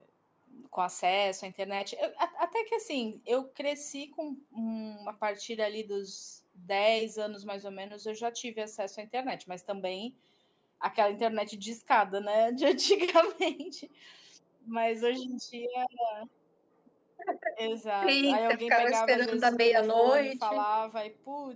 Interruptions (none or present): present